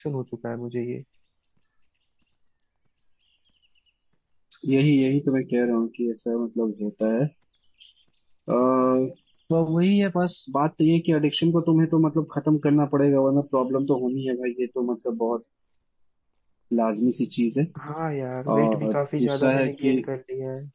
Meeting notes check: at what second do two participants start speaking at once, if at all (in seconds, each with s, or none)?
18.6 s